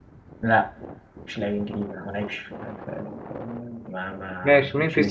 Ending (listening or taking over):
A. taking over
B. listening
A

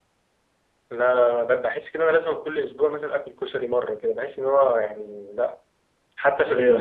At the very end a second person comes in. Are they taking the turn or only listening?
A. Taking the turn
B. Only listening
B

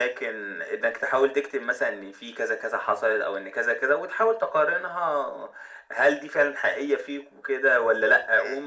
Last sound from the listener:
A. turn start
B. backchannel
B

